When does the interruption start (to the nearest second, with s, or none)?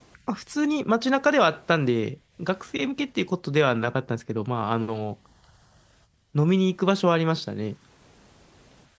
none